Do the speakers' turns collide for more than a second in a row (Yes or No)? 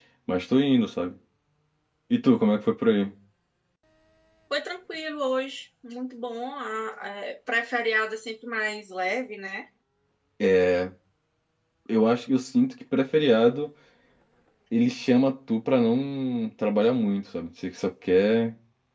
No